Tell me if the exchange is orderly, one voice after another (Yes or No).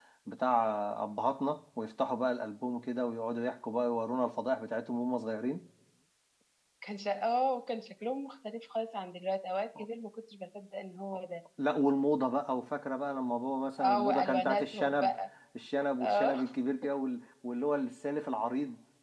No